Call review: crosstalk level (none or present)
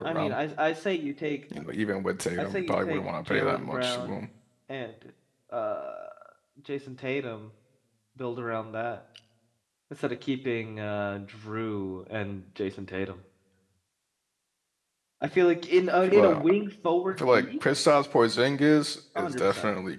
present